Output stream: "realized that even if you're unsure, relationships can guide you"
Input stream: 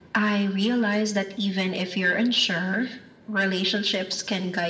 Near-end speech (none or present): none